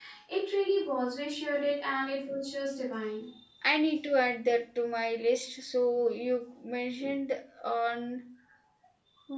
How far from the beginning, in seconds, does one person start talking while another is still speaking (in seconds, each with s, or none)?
none